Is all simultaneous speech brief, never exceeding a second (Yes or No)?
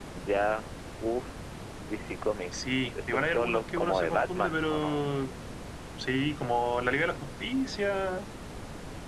No